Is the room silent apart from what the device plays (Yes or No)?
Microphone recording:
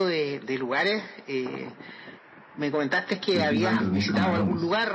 No